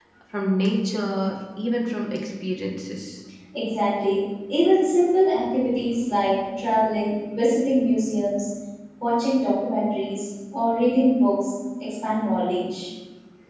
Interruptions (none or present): none